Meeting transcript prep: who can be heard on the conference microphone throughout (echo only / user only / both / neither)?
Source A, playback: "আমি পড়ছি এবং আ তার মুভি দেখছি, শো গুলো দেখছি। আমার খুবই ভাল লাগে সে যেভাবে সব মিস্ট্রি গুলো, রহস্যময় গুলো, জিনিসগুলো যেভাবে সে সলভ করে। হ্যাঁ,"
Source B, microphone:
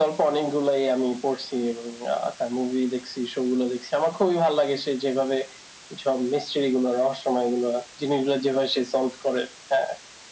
echo only